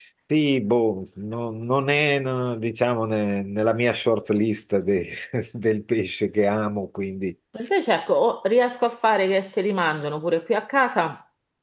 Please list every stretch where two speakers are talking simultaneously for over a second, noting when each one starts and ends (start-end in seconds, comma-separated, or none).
none